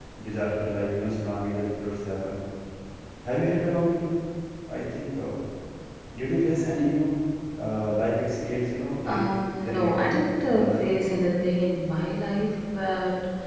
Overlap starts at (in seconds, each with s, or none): 9.1 s